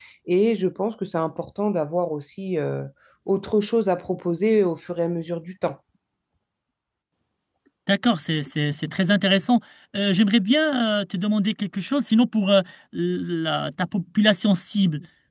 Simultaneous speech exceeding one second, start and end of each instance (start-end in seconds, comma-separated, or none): none